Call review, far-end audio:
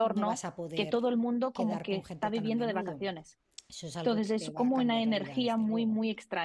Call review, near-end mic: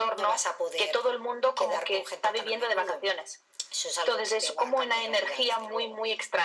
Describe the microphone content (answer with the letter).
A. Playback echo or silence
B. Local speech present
A